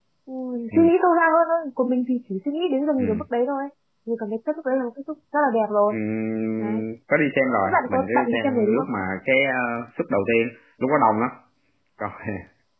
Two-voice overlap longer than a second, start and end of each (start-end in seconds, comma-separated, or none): 7.6-8.9